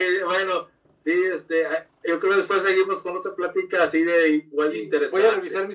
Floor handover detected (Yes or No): Yes